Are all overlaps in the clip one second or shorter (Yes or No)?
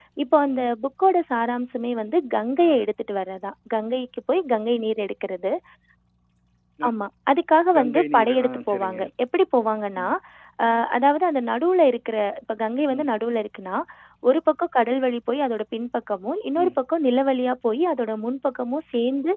No